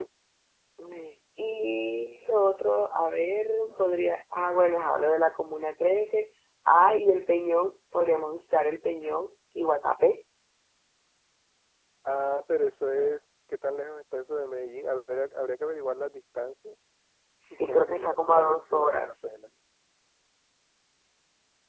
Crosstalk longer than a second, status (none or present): present